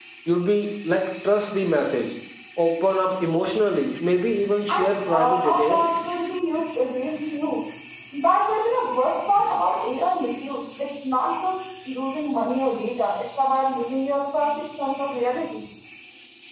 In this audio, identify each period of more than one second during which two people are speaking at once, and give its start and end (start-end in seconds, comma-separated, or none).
4.7-6.0